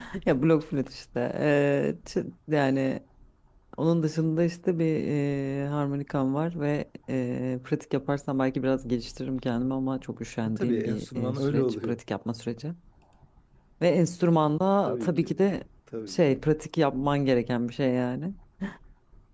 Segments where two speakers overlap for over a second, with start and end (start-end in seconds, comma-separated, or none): 10.4-12.0